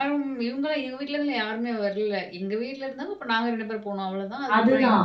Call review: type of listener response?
taking over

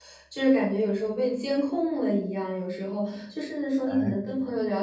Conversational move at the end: listening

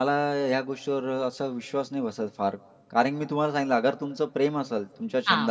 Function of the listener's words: listening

